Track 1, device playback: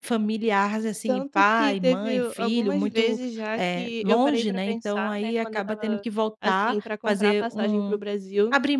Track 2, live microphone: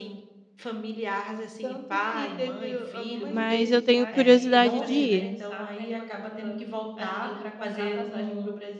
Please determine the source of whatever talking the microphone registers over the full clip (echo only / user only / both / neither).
both